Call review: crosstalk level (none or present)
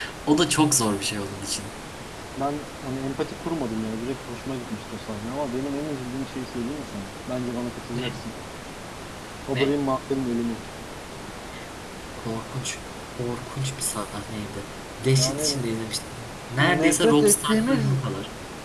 present